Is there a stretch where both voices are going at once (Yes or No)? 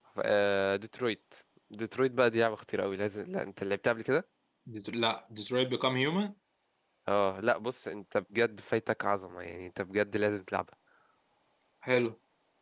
No